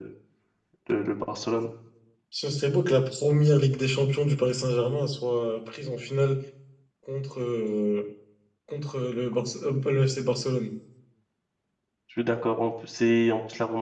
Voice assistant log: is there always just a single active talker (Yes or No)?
Yes